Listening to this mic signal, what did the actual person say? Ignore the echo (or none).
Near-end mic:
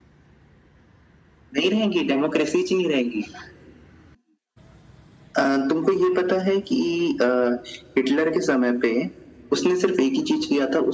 none